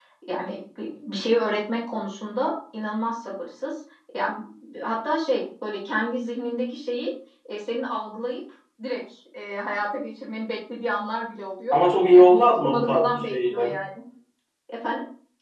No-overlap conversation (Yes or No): No